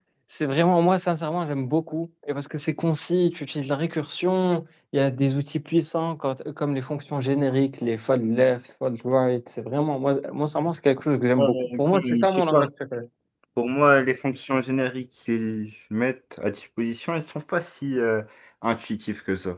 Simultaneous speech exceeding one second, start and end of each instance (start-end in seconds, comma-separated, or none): 11.4-12.7